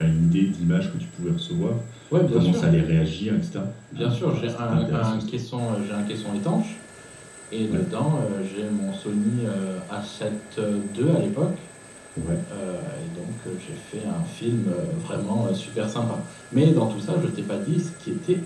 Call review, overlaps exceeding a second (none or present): present